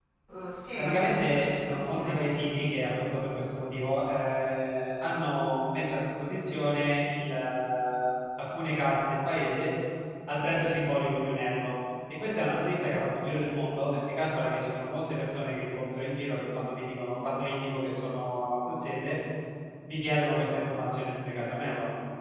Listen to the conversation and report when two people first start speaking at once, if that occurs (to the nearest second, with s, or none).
1 s